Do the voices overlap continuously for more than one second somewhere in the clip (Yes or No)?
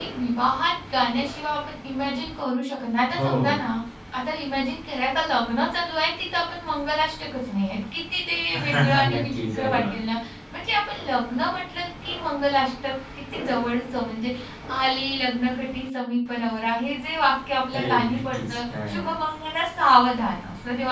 Yes